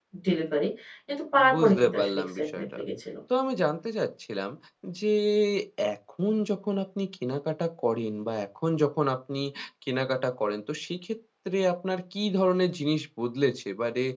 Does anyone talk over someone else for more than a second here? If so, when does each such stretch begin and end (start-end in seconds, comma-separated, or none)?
1.5-2.8